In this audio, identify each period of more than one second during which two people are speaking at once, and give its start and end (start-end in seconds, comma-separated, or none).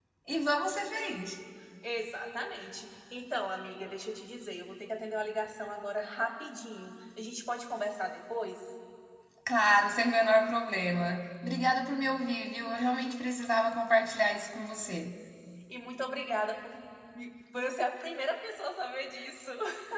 none